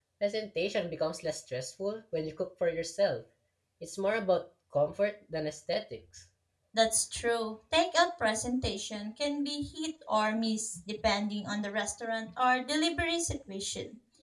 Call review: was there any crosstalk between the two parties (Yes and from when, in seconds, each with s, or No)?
No